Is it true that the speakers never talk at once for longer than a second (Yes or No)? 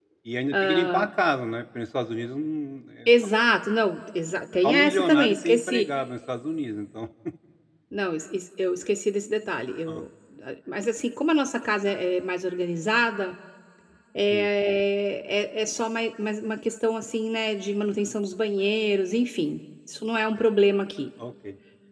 No